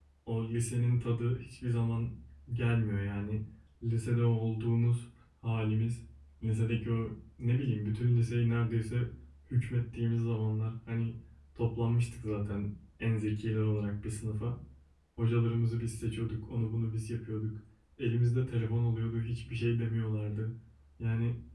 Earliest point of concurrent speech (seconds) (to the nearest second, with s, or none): none